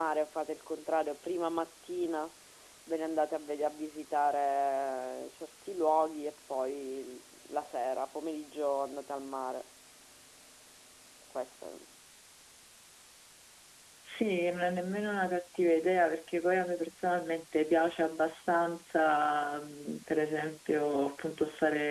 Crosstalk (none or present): none